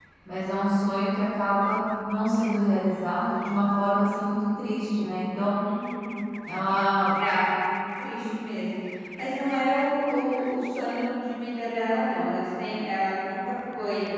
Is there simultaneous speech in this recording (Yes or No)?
No